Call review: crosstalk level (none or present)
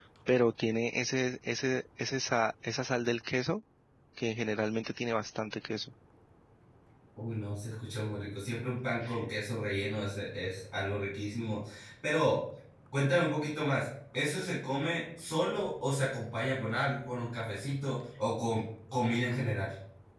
none